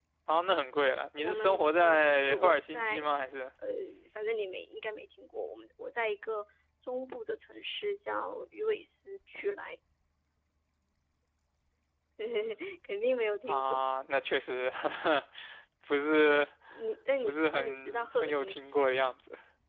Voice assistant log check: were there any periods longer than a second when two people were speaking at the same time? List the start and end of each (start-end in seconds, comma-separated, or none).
1.2-3.1, 17.2-18.5